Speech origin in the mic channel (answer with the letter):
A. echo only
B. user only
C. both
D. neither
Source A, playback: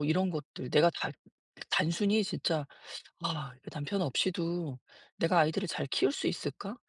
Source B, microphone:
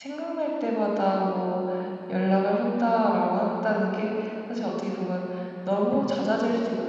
B